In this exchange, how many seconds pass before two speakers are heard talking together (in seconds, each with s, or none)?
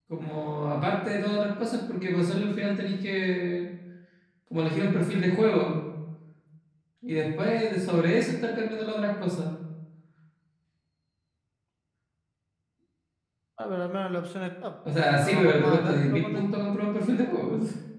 15.2 s